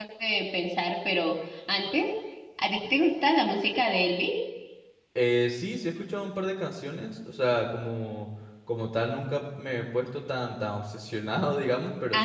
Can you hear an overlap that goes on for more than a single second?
No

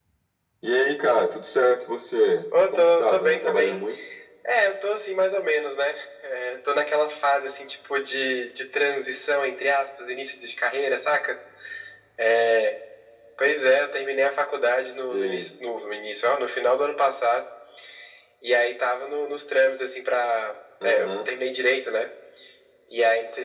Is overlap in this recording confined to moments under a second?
No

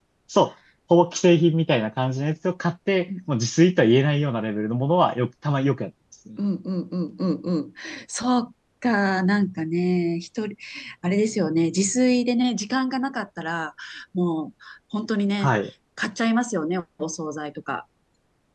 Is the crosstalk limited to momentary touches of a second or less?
Yes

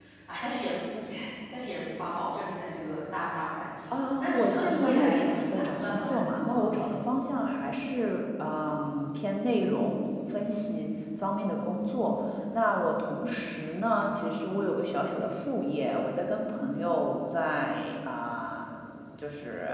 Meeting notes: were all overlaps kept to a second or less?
No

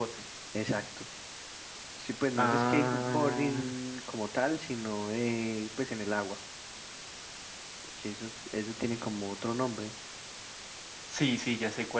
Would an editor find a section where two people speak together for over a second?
Yes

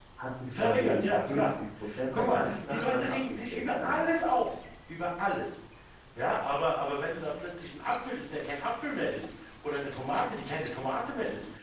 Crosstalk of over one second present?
Yes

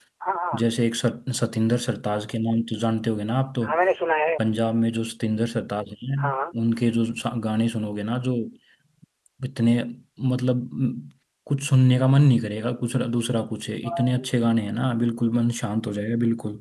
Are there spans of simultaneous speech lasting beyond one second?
No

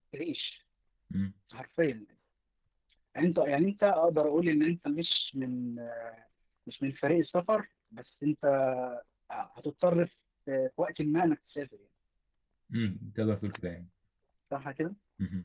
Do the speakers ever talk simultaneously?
No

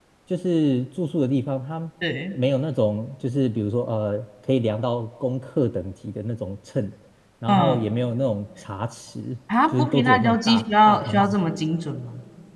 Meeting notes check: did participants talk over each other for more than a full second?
Yes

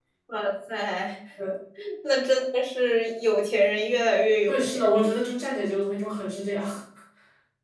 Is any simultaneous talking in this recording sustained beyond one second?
No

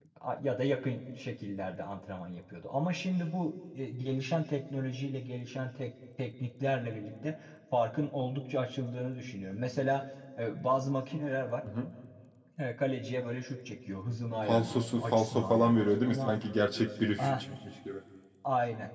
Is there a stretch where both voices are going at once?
Yes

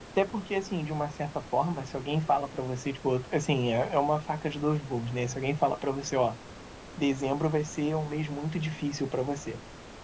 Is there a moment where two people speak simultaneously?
No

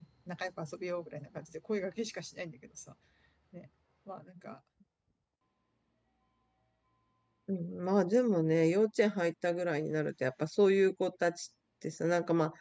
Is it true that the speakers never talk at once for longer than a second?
Yes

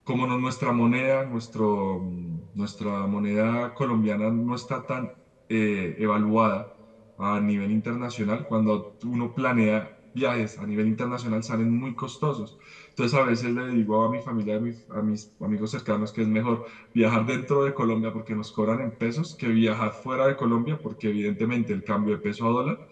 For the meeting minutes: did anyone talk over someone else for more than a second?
No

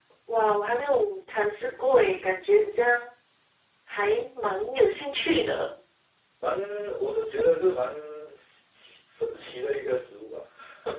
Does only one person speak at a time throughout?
Yes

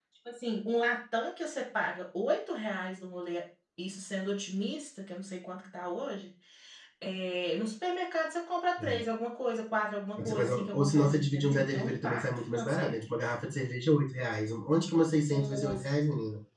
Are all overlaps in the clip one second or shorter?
No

